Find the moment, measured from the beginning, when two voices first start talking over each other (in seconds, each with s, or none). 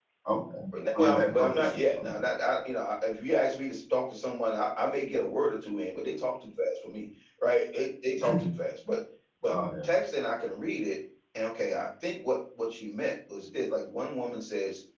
1.0 s